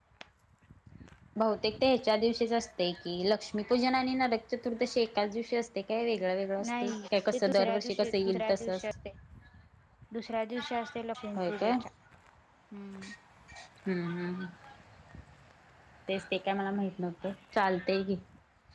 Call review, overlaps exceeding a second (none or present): present